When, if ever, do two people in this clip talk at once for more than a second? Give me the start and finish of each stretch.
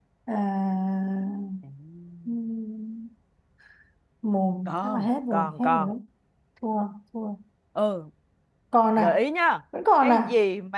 4.7-5.9

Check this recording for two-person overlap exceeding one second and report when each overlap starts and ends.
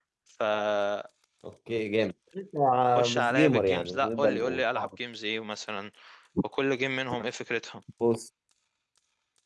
3.0-4.9

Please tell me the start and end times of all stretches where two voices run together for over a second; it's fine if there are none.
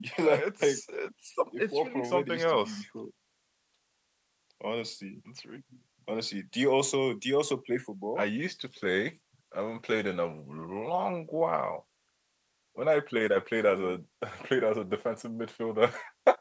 1.6-2.8

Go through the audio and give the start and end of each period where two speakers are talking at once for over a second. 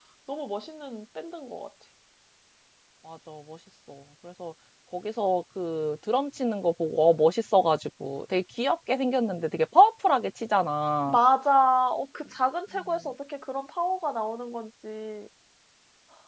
none

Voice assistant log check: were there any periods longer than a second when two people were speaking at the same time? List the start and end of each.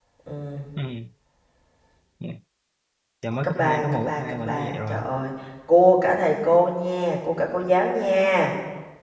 3.4-5.0

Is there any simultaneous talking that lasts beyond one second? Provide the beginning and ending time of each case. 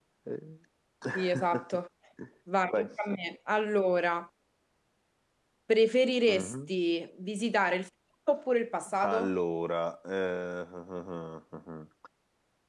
none

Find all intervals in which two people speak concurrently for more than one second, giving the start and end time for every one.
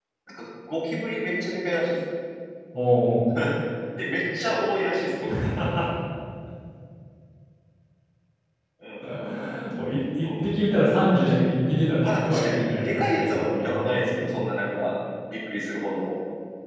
12.0-14.2

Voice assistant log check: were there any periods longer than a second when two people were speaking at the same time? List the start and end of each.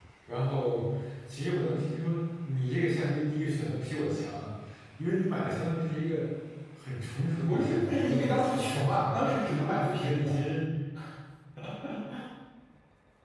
7.4-9.4

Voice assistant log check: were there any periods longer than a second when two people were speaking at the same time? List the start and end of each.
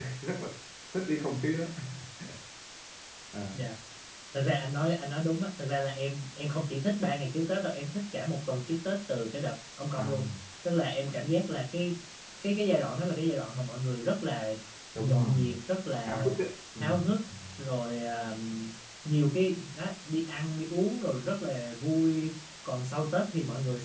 none

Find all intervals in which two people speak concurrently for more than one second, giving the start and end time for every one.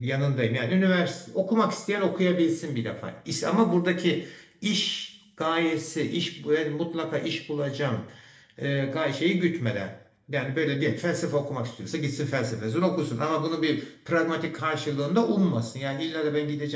none

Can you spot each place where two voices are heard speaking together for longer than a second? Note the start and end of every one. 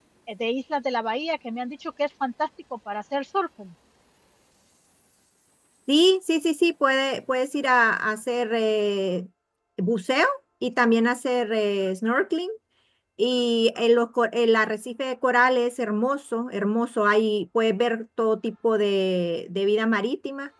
none

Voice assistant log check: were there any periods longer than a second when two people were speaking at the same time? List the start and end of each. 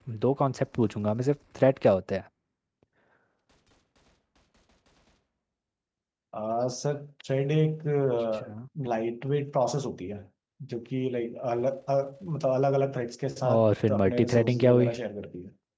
13.5-14.9

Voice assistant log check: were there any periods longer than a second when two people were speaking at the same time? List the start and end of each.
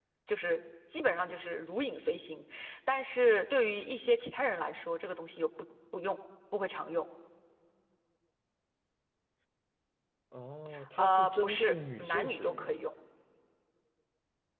11.0-12.8

